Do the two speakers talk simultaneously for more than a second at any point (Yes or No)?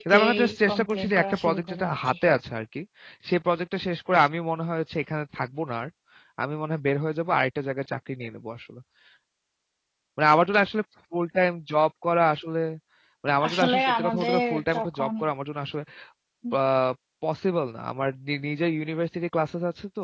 Yes